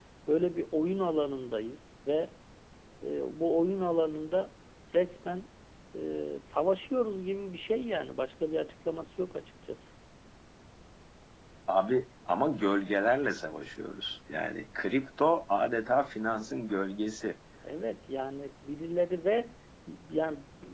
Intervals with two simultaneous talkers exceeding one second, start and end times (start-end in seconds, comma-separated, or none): none